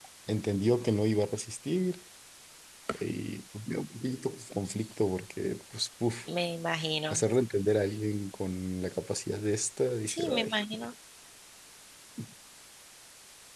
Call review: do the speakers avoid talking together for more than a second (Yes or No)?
Yes